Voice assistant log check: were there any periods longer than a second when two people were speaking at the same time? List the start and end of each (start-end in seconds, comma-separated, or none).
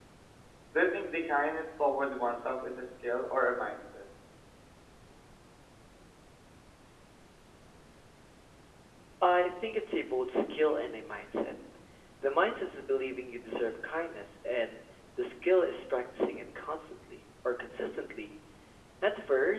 none